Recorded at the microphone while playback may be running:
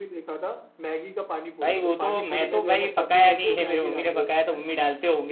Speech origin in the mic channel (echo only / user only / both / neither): both